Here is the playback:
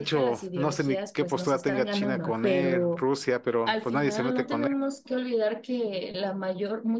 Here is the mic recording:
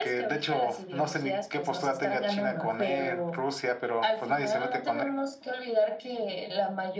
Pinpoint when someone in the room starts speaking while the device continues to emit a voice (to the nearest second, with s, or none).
none